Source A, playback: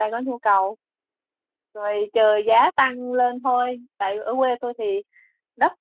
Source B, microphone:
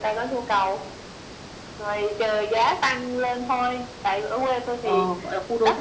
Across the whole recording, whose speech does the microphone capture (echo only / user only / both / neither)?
both